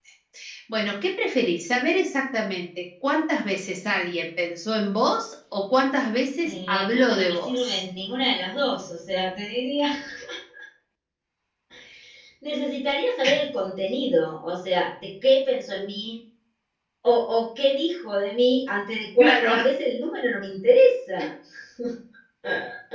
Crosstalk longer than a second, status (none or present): present